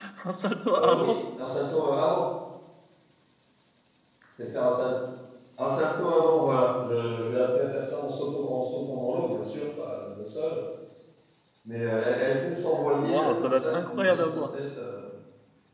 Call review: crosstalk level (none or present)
present